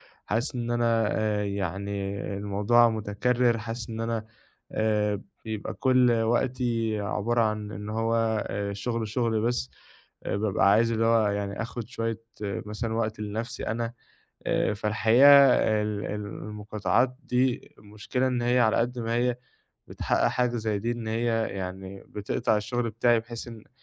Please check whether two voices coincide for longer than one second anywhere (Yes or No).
No